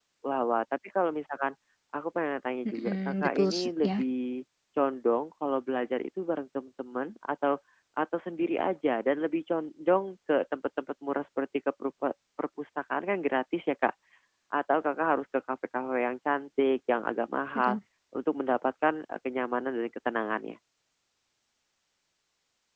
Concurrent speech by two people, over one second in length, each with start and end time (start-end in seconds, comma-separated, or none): 2.7-3.9